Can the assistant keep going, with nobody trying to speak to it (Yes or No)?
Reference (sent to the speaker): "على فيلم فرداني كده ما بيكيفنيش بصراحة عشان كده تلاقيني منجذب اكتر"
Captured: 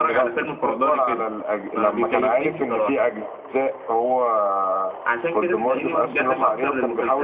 No